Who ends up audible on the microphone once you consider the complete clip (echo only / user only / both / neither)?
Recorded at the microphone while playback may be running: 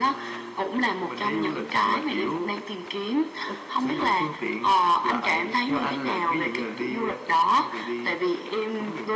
echo only